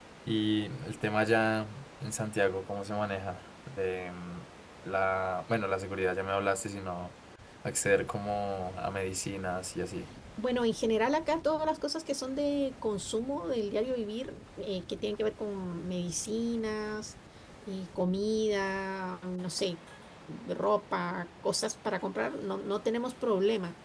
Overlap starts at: none

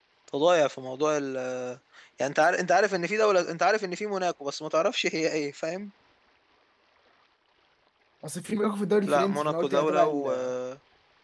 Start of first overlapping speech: 9.1 s

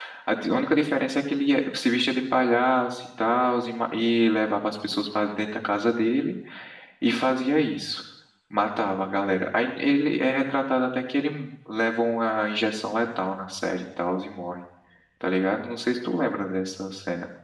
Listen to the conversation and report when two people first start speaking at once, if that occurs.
none

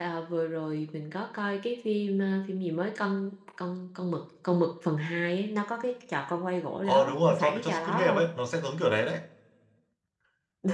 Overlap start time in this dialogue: 6.8 s

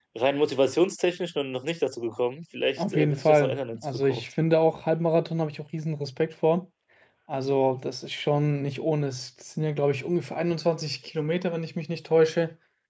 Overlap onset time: 2.8 s

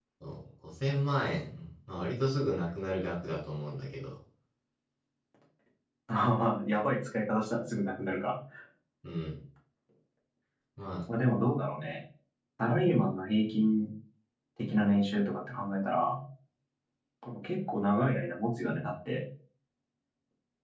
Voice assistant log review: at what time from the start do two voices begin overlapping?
none

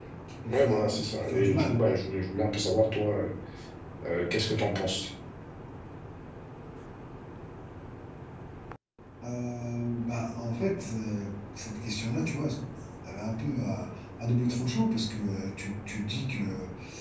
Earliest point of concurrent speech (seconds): 0.5 s

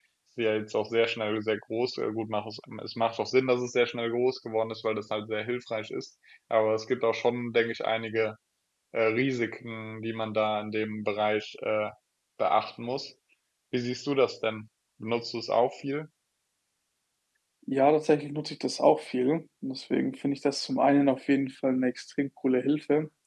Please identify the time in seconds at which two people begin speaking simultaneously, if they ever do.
none

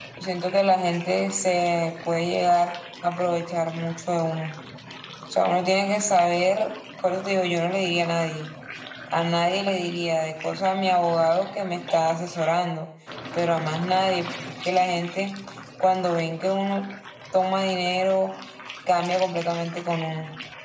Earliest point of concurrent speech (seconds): none

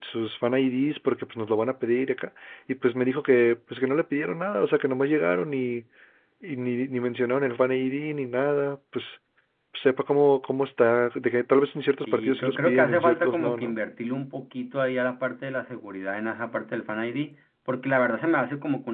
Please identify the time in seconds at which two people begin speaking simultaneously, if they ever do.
12.1 s

